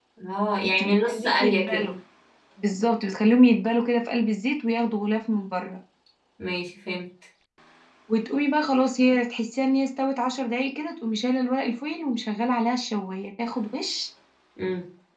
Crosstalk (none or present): present